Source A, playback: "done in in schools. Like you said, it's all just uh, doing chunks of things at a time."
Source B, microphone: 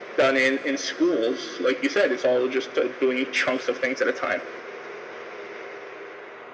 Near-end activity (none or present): none